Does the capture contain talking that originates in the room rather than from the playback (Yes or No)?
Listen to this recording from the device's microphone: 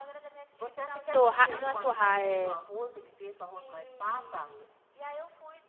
Yes